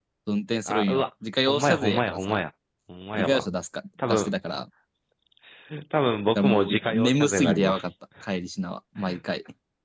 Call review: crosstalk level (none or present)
present